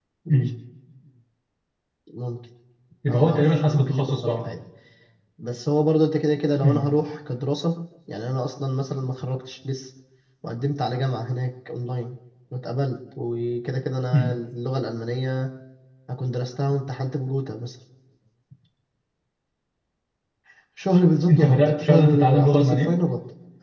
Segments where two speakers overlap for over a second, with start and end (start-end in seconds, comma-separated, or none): 3.1-4.5, 21.3-23.0